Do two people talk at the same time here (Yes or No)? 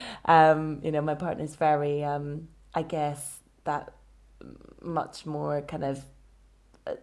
No